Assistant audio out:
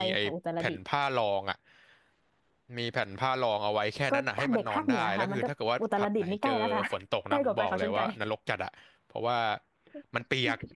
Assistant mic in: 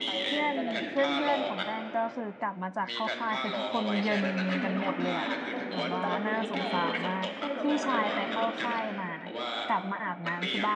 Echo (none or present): present